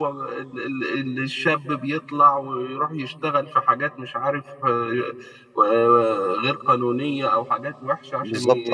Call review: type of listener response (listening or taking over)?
listening